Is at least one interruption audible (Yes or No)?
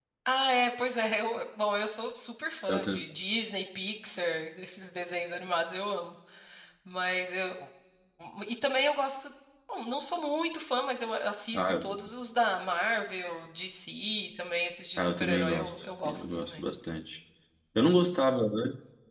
Yes